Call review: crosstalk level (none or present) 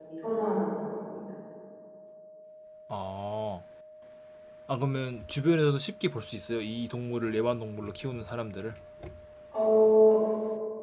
none